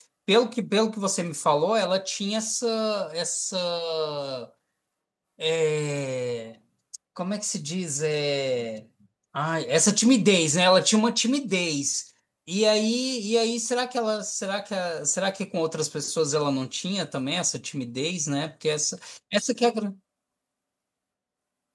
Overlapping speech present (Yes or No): No